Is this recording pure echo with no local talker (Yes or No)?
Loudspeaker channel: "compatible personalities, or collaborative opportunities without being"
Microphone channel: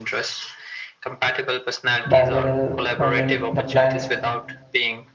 No